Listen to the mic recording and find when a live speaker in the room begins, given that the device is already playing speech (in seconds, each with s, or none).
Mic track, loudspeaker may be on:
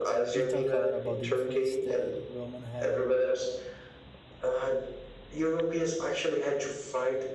0.3 s